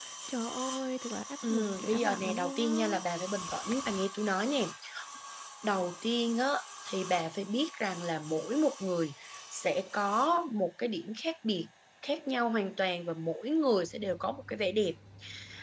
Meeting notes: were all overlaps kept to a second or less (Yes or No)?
No